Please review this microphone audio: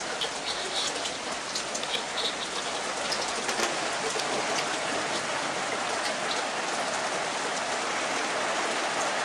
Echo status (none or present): none